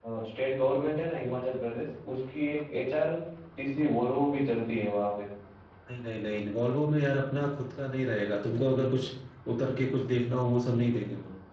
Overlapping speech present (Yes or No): No